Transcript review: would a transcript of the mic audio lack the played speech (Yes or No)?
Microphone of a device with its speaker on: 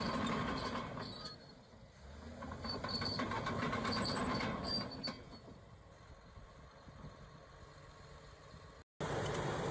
Yes